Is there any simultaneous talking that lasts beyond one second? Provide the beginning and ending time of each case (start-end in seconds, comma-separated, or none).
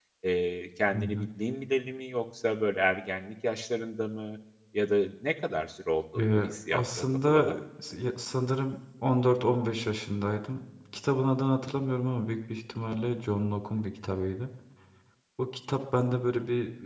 6.2-7.5